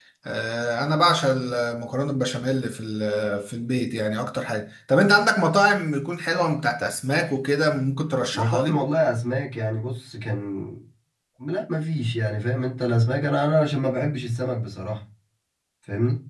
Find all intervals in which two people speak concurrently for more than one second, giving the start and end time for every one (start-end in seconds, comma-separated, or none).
none